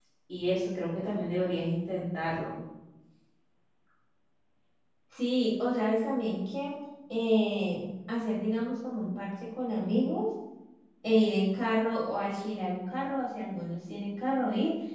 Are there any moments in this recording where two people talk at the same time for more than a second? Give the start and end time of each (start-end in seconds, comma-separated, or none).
none